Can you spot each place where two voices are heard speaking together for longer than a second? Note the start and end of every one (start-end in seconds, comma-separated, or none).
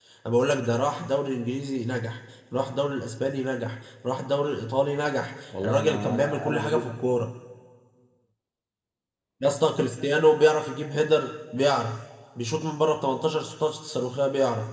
5.6-7.1